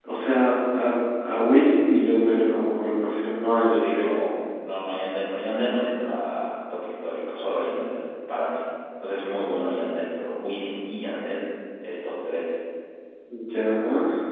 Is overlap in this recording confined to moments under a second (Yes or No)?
Yes